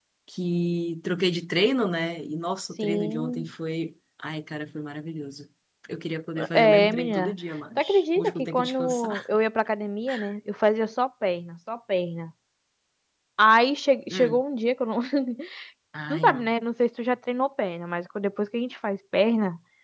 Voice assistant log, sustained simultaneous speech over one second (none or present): present